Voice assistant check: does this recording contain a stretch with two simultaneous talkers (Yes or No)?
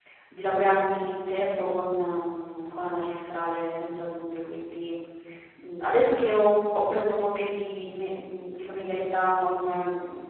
No